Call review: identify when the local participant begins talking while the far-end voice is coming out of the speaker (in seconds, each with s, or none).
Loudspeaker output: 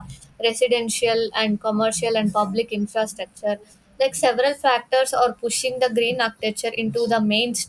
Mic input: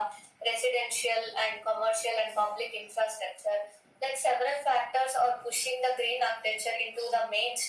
none